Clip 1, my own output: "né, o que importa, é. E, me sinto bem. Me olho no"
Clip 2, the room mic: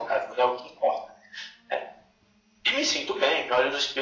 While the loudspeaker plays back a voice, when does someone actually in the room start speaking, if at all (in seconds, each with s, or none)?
none